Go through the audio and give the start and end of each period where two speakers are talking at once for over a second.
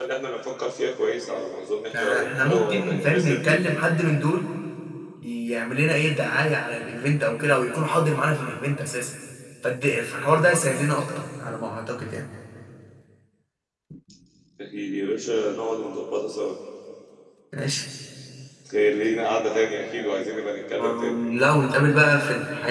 1.9-3.7

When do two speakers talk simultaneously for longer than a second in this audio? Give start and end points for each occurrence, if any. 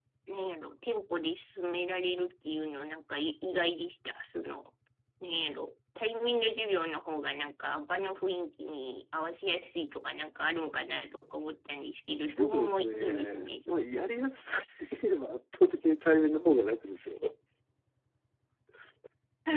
12.2-13.8

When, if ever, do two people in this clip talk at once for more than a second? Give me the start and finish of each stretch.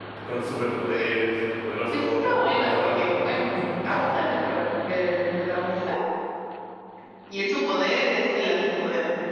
1.9-3.1

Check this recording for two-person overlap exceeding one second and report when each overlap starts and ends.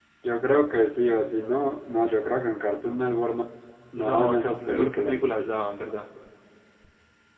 4.1-5.5

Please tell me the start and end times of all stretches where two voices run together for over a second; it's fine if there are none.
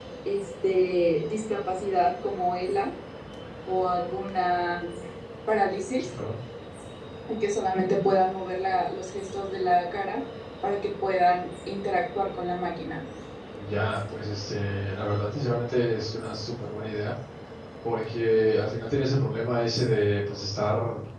none

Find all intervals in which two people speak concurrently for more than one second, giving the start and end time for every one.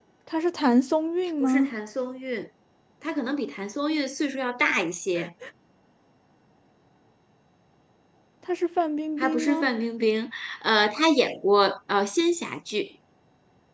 none

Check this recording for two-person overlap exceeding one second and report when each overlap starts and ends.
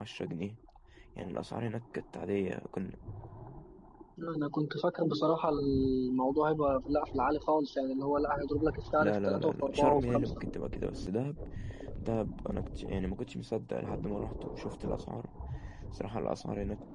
9.0-10.3

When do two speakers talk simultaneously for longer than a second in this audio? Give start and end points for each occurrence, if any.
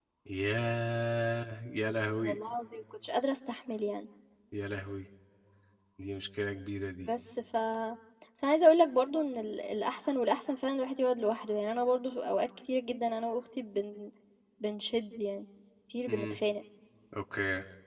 none

